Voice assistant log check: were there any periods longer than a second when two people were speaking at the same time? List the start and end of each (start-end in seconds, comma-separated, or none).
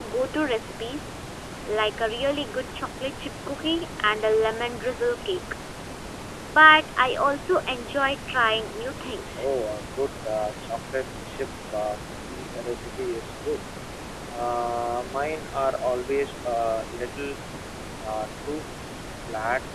none